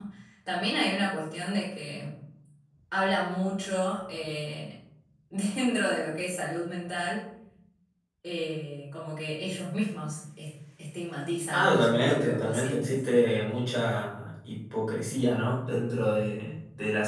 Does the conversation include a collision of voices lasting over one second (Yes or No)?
Yes